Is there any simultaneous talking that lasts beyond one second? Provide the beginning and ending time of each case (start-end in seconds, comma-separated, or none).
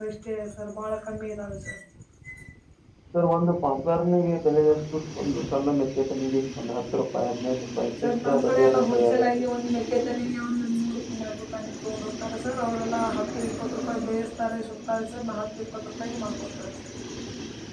8.0-9.4